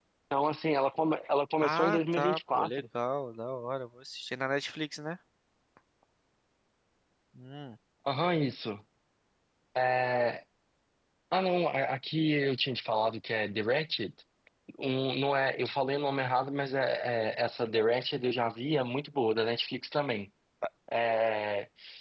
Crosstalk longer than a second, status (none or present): present